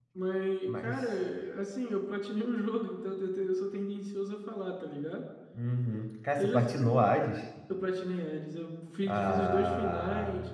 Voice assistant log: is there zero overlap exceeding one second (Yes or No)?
No